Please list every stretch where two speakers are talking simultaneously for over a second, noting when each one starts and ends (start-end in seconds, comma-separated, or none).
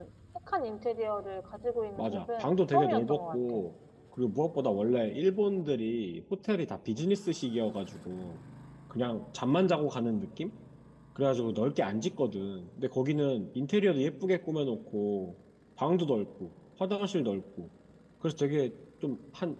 2.0-3.6